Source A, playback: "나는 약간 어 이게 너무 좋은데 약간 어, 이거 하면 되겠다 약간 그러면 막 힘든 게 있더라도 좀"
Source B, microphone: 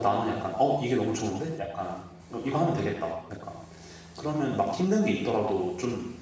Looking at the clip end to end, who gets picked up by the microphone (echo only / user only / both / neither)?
echo only